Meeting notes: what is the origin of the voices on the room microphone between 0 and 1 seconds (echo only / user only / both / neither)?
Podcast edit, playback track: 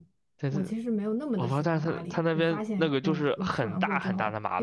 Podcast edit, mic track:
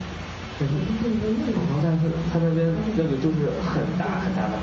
echo only